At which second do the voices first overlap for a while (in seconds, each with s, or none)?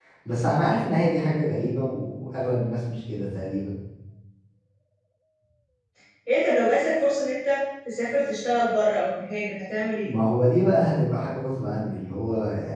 none